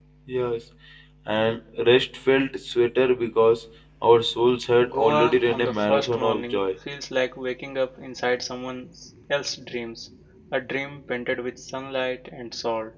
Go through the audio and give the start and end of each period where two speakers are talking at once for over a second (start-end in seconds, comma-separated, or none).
4.9-6.6